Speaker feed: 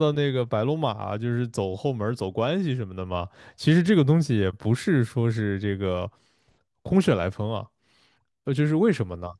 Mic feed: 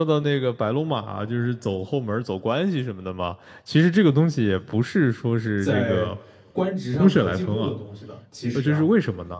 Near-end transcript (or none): 在官职上可进步的东西的，其实啊。